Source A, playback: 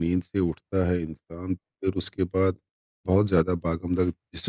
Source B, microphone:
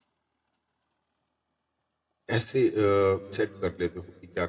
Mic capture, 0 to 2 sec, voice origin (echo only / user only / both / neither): neither